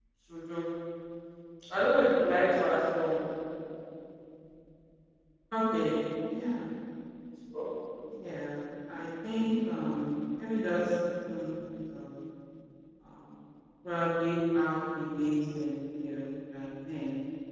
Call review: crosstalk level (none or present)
none